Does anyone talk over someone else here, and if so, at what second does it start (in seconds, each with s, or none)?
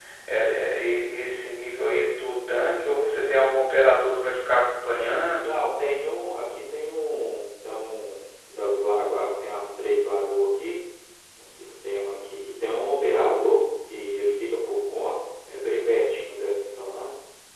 none